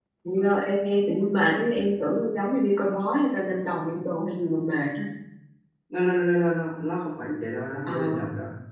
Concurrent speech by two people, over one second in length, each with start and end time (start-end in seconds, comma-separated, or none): none